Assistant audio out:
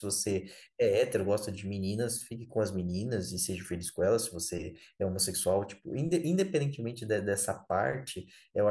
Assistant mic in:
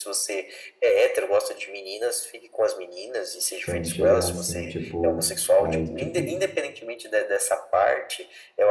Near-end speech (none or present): present